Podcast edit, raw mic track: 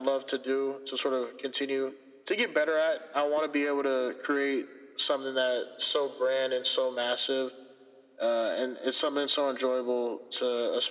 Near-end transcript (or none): none